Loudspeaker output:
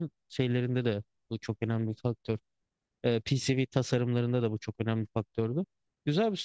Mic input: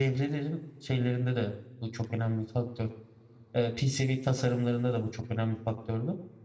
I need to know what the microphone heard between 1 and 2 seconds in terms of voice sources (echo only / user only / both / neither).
echo only